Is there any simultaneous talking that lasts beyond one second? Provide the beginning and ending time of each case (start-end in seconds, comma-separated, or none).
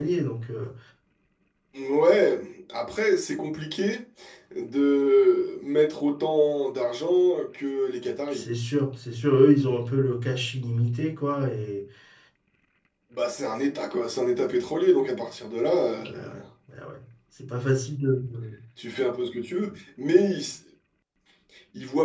none